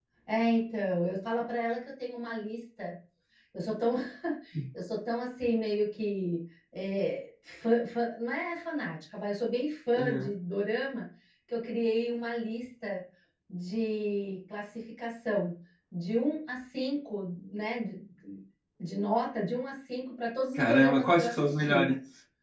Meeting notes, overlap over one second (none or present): present